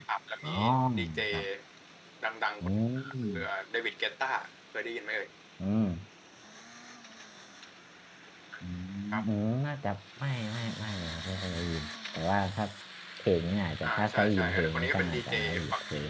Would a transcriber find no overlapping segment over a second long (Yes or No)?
No